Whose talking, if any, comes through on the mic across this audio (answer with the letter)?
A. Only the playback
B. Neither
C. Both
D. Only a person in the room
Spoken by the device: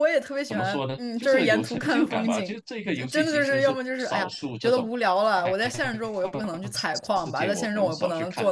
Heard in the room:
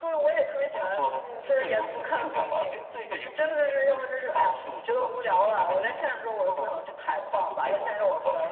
A